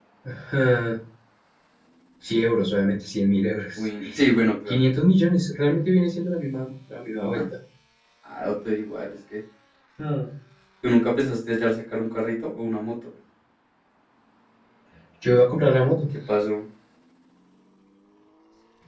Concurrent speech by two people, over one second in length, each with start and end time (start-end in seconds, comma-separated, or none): none